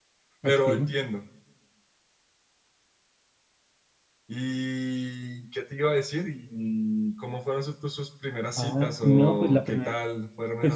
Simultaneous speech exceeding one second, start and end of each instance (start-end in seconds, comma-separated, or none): 8.6-9.9